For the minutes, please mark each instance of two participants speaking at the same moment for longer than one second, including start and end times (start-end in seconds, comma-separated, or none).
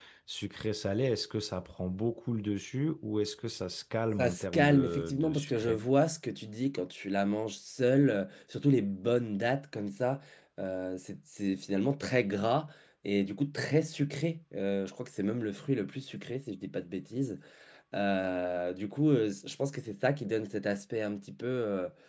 4.2-5.8